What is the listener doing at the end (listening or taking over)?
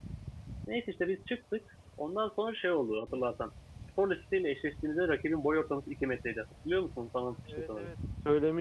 taking over